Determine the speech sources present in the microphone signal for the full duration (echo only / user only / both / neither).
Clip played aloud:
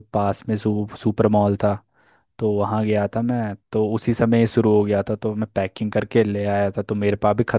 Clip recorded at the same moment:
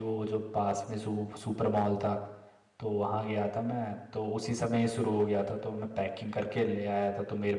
echo only